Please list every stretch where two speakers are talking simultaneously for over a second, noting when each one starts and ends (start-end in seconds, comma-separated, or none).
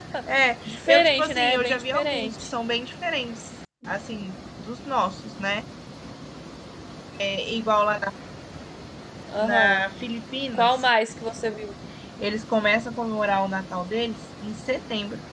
0.6-2.5